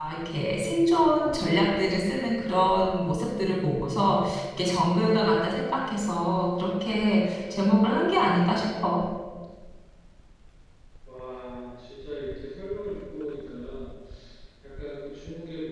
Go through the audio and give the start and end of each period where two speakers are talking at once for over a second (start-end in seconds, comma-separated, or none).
none